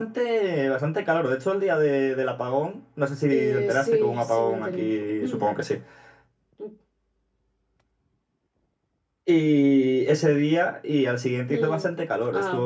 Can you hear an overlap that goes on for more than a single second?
Yes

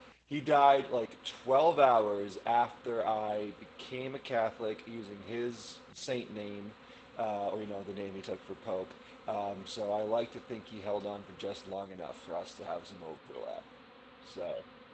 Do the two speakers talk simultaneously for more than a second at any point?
No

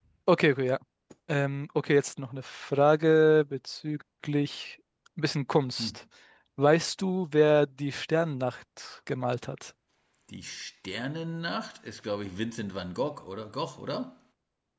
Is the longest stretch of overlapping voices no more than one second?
Yes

